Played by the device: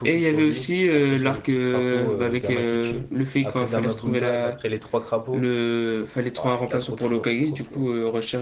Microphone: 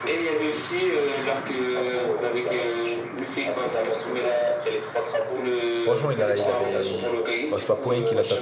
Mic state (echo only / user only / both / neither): both